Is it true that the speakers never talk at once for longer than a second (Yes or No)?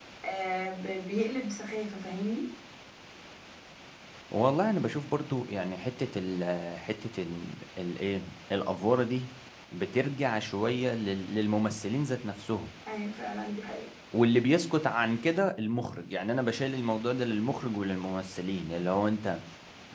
Yes